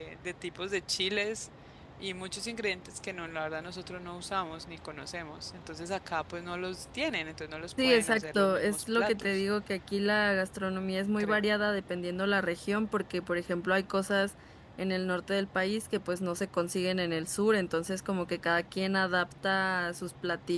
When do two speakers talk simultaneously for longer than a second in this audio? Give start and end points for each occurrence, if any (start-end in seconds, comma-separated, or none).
7.8-9.4